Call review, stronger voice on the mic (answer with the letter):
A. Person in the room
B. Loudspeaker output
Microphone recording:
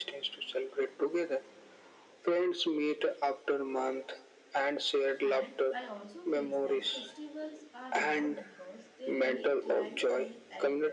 B